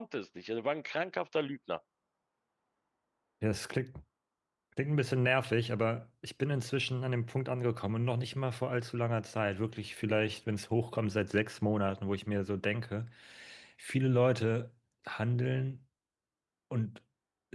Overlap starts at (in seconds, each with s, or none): none